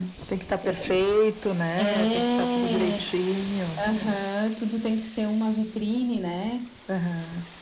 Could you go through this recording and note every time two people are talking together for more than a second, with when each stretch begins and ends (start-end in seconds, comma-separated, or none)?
1.8-3.1